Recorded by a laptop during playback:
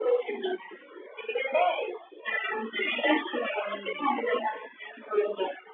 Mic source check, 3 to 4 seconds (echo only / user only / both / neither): both